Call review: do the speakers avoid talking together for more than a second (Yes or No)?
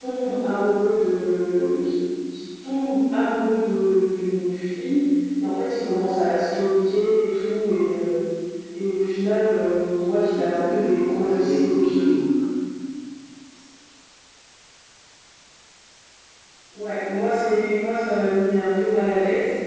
No